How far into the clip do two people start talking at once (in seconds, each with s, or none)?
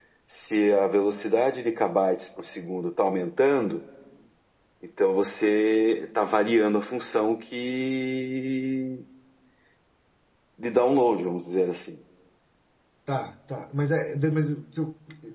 none